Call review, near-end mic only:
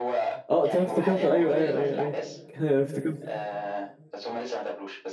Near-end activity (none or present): present